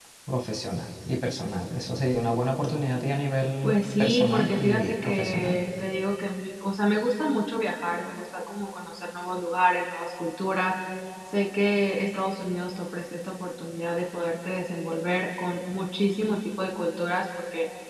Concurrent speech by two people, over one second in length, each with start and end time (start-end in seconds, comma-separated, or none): 3.6-5.6